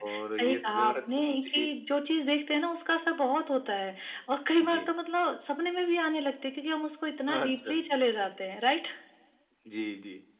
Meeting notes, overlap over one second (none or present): present